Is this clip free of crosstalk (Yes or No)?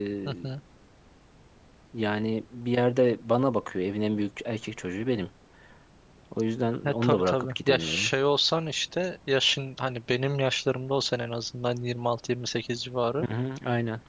No